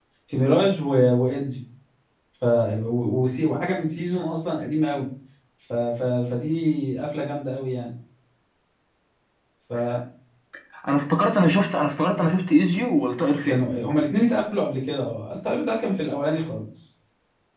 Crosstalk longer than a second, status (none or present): none